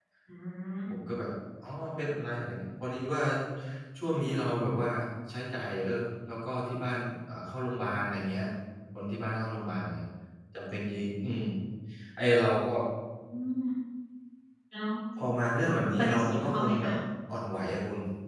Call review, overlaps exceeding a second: present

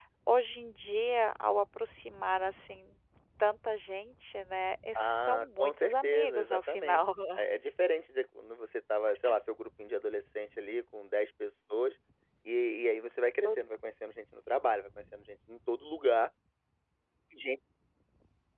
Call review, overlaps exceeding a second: present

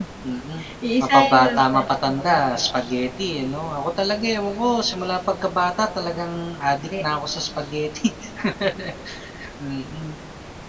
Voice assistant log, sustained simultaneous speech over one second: present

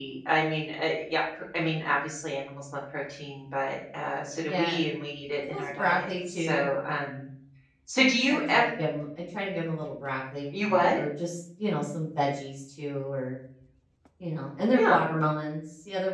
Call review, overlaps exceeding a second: present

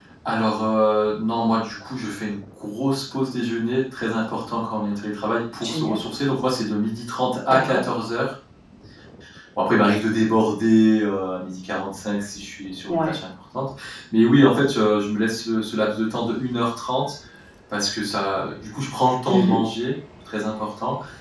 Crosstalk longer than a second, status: none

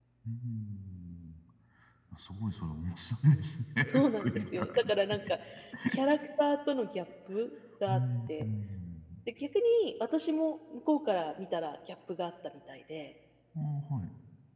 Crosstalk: present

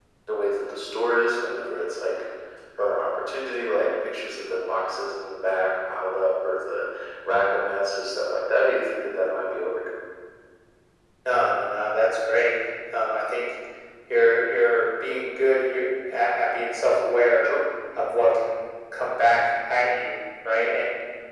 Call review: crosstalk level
none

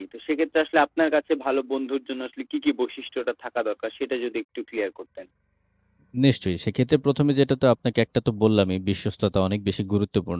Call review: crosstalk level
none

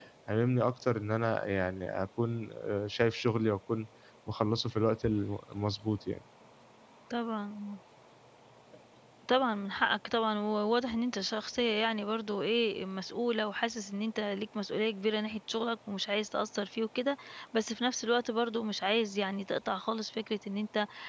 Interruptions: none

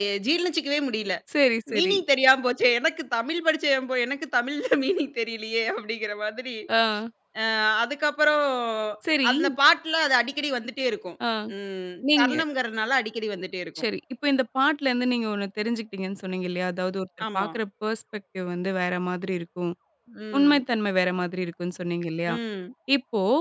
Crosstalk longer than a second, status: none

